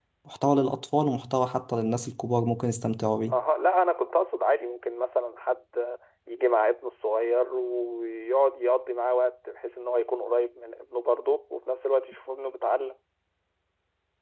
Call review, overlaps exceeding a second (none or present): none